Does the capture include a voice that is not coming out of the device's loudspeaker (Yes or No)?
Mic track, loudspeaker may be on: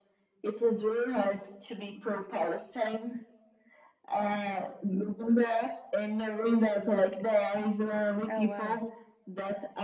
Yes